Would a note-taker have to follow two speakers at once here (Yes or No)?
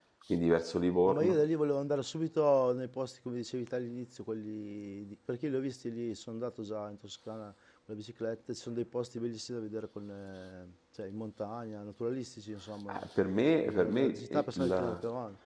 Yes